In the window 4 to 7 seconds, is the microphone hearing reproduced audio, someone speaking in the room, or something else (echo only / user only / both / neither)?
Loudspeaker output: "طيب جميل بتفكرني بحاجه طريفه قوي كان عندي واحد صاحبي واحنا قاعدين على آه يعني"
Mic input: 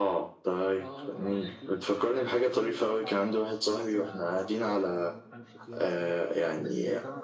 both